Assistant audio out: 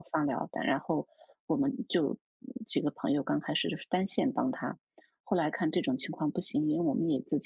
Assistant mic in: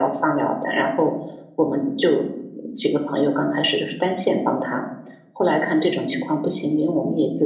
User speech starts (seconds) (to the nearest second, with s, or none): none